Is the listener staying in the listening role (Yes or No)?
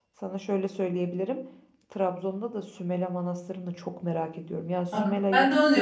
No